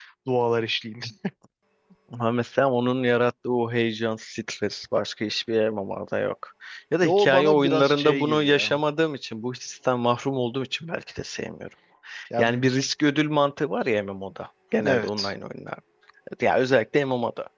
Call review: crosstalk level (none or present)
present